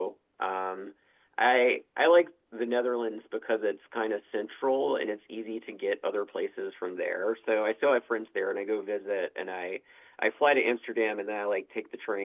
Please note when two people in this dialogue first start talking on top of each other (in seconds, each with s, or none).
none